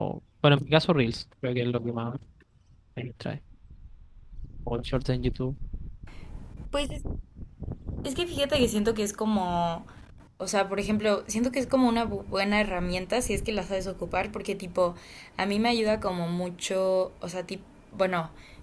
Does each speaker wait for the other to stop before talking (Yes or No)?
Yes